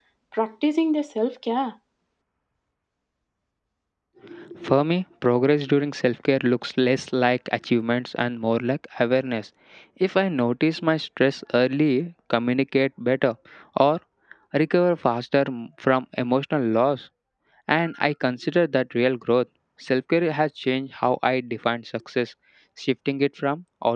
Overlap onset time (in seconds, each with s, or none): none